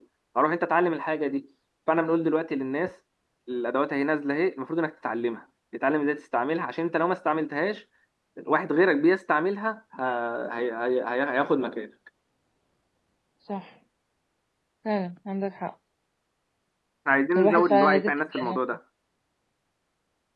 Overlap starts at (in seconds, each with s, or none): 17.4 s